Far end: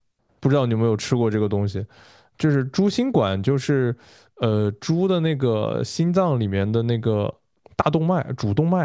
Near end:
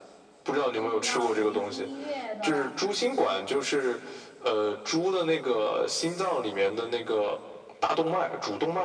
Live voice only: 是要每天听音乐的，

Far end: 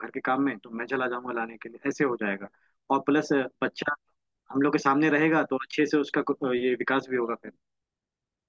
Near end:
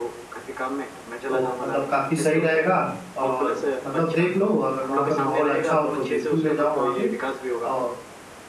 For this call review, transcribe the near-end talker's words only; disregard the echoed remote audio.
तो मतलब काफी सही रहेगा और मतलब देख लो अगर वहाँ पे माहौल अच्छा हो तो बिल्कुल ले जाओ वहाँ पे और

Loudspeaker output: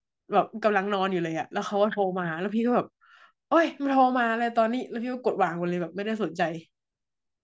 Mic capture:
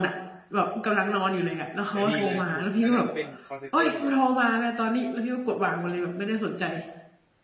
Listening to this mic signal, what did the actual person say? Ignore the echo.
แต่ดีเลยสรุปอันนั้นก็เป็นคอลเซเตอร์ไปเลย

